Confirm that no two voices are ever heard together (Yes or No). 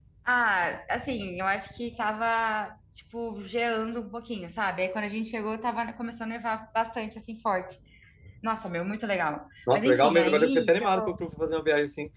No